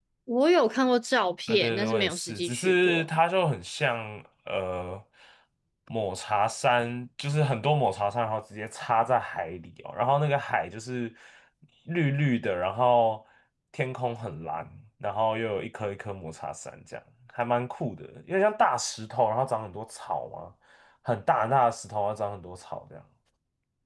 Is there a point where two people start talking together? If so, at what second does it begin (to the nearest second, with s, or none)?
1 s